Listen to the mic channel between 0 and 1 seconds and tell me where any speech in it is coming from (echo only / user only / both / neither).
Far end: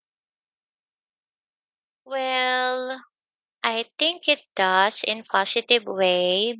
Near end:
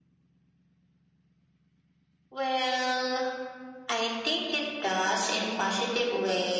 neither